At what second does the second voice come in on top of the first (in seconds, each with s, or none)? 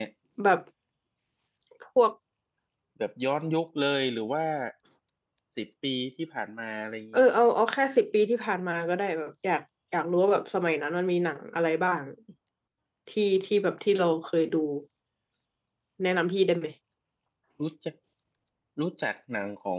none